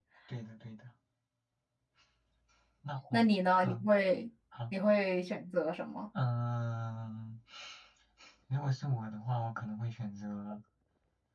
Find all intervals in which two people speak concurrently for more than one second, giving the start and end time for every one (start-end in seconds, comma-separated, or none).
none